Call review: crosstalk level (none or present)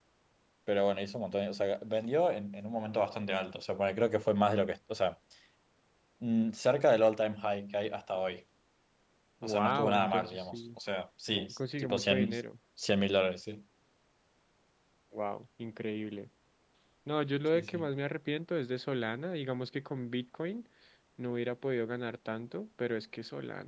present